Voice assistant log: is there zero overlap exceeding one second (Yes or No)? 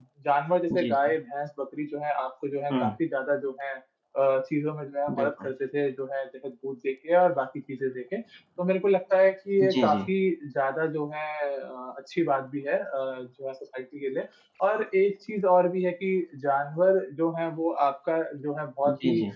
Yes